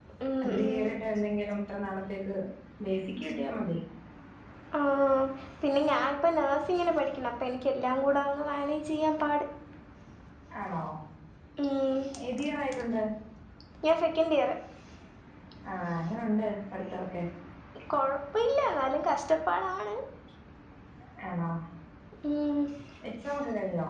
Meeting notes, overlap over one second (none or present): none